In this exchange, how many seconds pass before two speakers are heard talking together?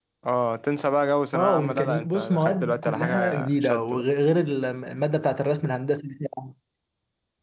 1.3 s

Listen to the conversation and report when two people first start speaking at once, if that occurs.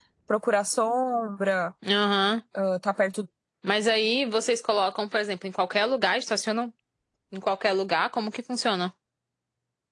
none

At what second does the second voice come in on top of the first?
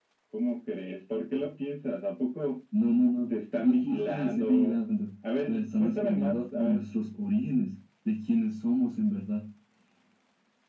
3.3 s

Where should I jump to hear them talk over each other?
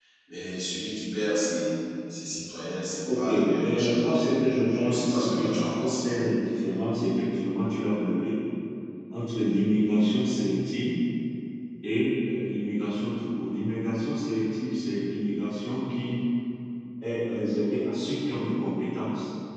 3.0 s

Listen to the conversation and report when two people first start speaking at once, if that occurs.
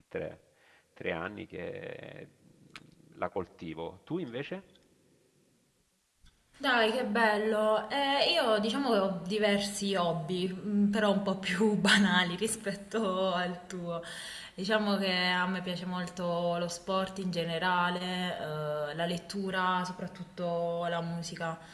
none

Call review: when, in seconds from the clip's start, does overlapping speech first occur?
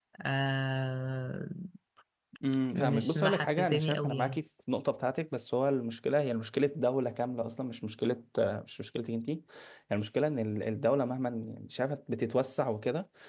2.7 s

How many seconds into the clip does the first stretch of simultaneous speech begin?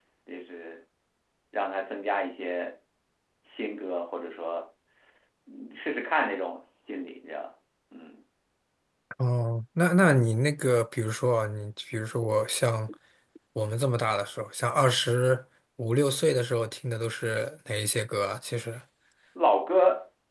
none

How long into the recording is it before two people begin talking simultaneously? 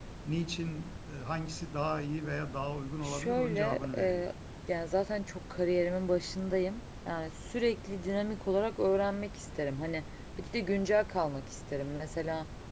3.0 s

